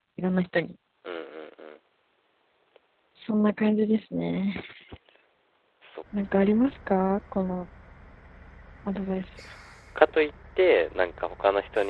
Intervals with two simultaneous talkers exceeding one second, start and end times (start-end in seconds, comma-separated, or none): none